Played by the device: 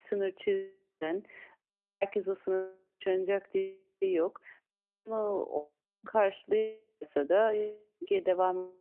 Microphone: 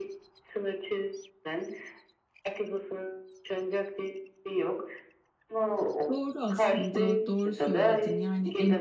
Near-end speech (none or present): present